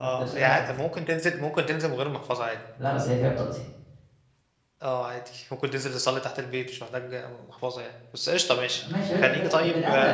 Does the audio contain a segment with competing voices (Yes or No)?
Yes